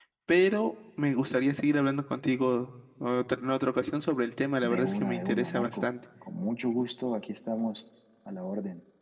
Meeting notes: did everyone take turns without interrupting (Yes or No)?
No